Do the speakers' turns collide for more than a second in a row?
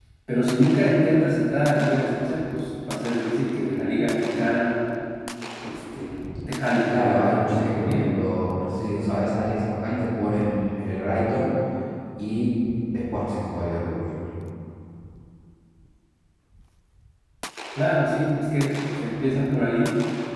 Yes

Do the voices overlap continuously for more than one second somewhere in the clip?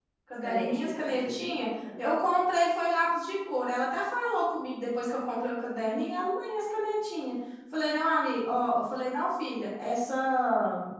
Yes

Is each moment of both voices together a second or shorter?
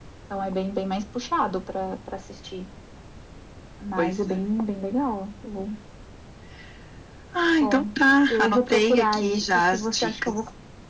No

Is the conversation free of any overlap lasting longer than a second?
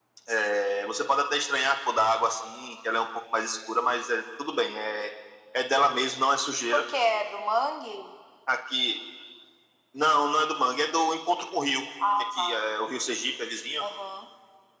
Yes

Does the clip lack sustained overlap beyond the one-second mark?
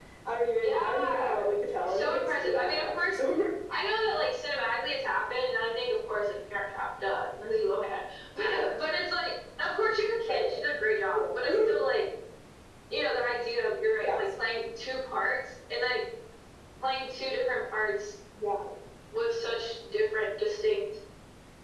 No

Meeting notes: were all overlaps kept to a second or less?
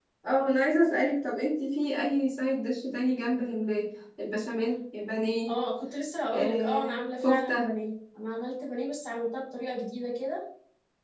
No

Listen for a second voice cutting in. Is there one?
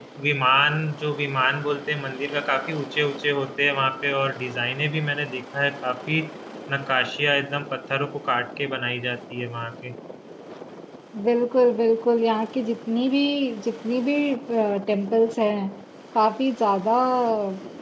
No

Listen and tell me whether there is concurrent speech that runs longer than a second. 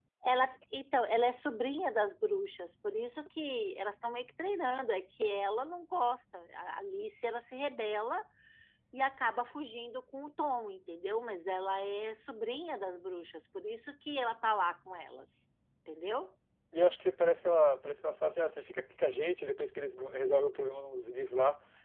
No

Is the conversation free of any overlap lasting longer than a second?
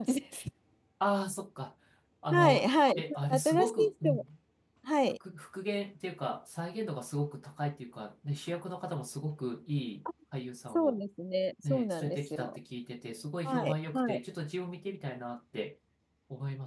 No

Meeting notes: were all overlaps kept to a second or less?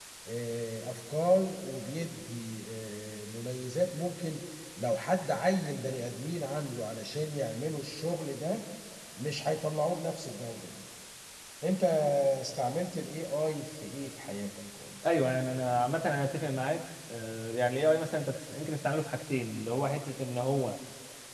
Yes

